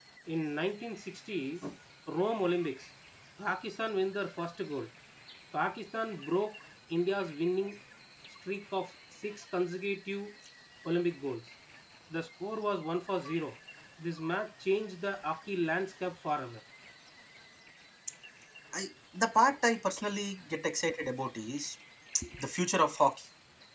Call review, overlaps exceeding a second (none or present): none